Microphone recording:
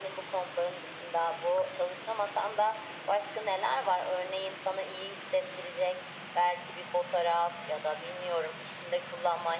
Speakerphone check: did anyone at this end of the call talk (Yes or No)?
No